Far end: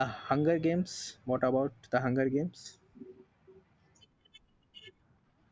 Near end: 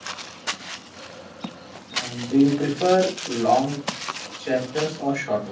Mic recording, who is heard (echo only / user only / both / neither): user only